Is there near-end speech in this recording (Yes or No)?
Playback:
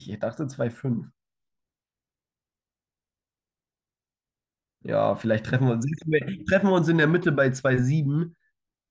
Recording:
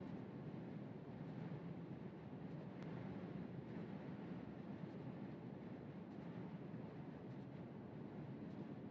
No